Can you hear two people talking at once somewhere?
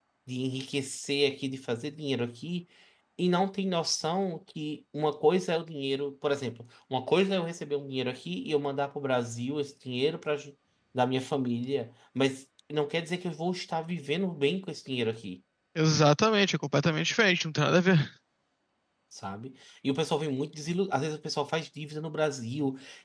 No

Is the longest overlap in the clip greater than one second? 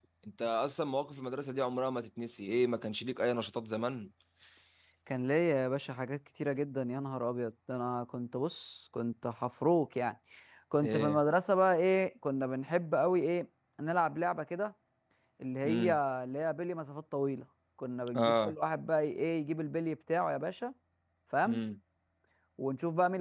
No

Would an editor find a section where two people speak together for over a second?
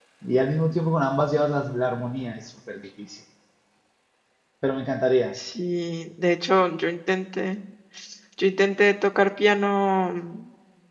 No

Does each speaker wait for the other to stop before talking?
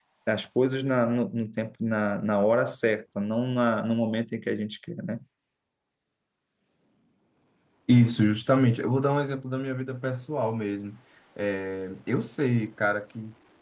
Yes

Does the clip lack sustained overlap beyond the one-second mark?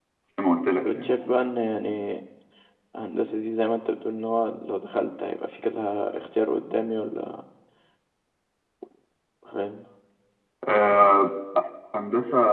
Yes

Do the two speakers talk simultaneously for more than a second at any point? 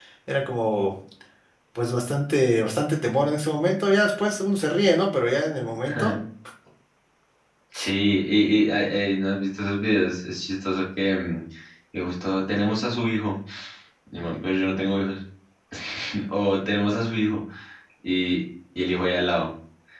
No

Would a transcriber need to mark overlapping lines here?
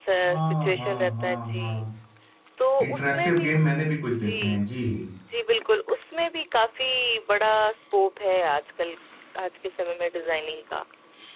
Yes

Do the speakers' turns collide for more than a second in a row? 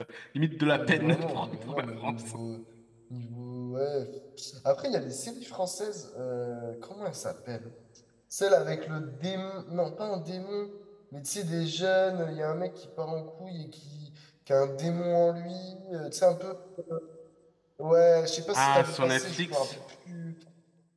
Yes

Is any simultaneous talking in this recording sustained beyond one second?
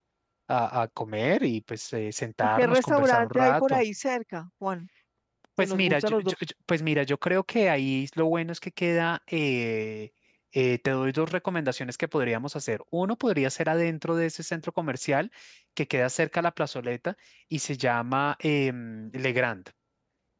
Yes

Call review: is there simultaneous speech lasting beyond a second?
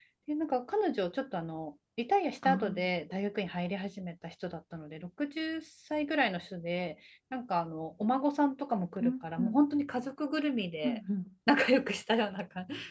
No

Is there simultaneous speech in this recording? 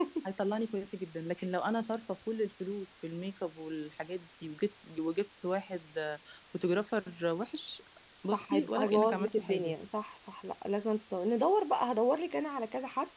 Yes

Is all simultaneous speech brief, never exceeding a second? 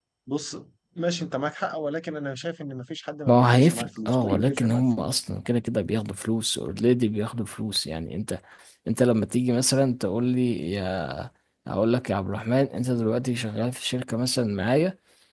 No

